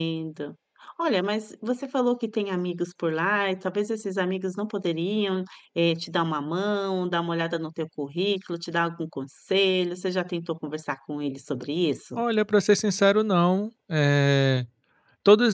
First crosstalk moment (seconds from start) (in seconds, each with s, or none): none